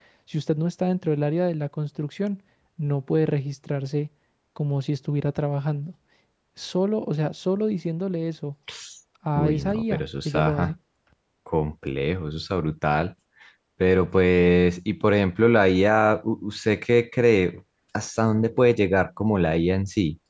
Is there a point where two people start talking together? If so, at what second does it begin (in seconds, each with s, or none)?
9.4 s